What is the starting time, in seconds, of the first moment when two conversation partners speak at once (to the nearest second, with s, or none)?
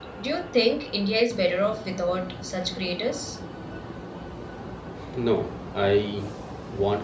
none